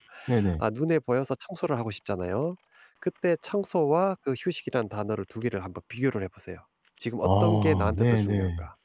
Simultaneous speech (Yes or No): Yes